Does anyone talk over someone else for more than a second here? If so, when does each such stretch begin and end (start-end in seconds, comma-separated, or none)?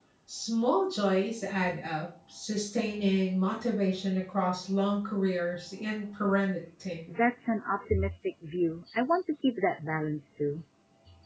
none